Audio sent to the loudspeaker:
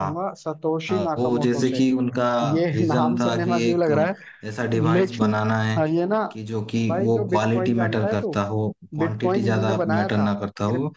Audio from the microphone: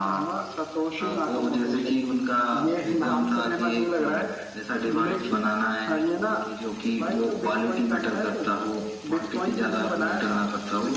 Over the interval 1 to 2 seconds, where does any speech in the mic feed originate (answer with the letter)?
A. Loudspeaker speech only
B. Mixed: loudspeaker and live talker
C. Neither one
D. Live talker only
A